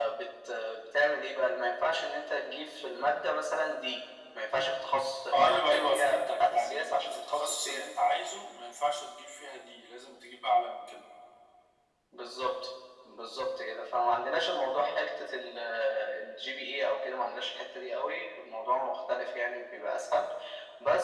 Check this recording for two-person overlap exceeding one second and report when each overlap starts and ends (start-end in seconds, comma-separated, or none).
5.3-7.6